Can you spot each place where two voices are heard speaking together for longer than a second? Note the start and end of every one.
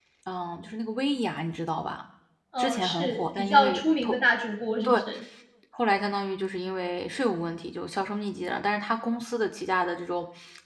2.6-4.1

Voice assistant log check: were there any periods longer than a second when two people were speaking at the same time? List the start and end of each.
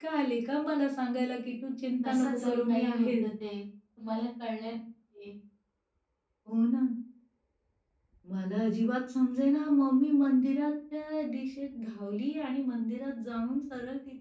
2.0-3.2

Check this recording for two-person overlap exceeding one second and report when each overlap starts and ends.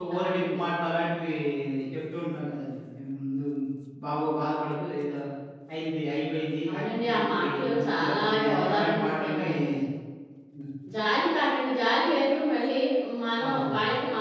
6.7-9.5

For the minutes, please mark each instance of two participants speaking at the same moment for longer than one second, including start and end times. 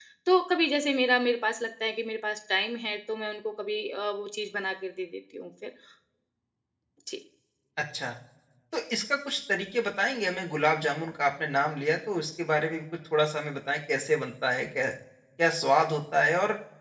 none

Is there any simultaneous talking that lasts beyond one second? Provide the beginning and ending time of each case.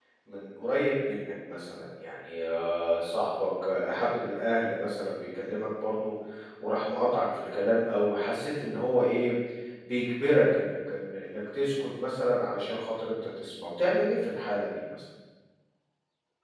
none

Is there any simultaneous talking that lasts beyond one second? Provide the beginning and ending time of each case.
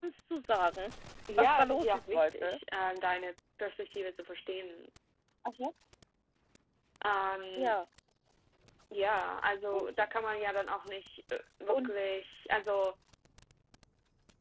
1.4-2.6

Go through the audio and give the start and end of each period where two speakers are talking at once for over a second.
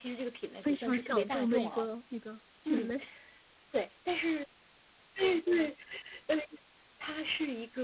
0.6-1.9

